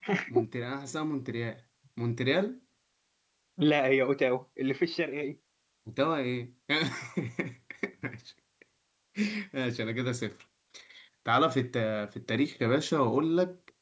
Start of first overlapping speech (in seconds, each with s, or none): none